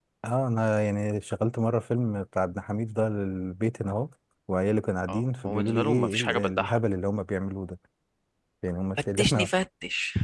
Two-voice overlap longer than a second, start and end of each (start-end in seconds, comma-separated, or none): 5.1-6.8